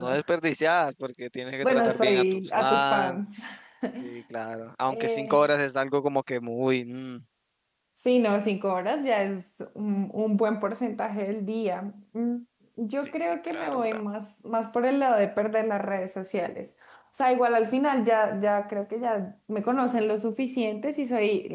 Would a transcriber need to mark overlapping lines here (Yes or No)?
Yes